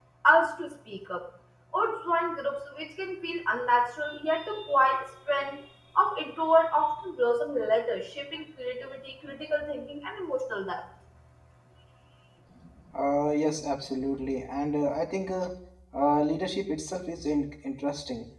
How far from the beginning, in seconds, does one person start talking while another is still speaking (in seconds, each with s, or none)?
none